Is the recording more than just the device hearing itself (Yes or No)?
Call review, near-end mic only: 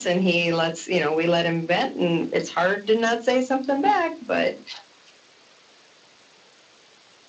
No